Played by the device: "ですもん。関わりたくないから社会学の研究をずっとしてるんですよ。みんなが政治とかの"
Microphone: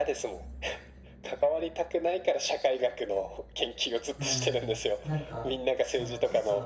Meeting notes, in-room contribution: present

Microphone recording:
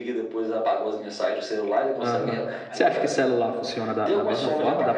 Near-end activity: present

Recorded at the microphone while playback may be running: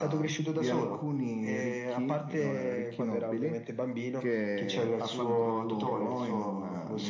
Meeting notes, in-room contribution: none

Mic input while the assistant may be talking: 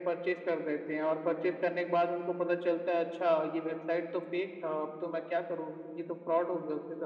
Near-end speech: none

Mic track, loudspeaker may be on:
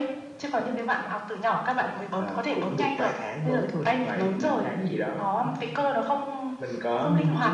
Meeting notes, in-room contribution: none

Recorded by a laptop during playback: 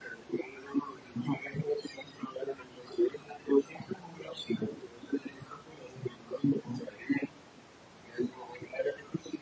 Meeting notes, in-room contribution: none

